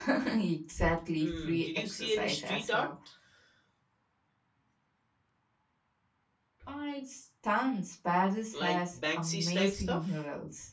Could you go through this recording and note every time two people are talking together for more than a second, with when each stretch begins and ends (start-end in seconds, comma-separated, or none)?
1.2-2.9, 8.5-10.1